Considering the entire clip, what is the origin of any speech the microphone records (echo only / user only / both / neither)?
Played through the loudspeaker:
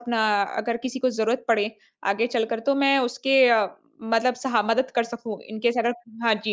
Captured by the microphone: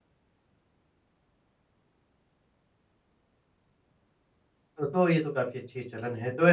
user only